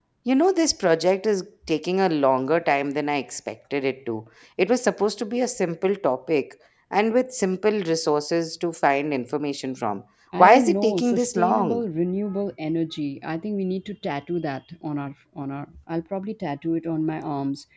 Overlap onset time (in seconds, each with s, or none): 10.3 s